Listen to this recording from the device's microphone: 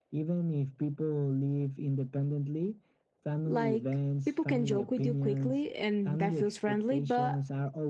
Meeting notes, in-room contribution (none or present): present